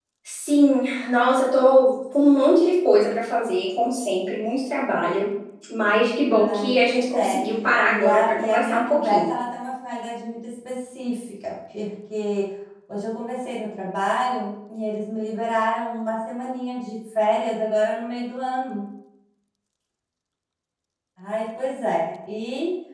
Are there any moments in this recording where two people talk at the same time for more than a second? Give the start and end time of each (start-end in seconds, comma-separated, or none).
6.2-7.4, 7.8-9.3